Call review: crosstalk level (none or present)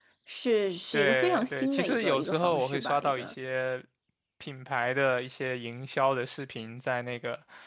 present